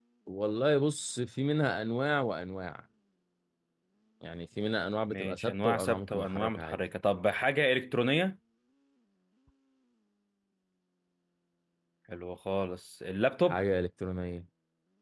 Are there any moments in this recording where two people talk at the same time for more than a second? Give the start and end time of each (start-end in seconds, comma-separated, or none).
5.1-6.8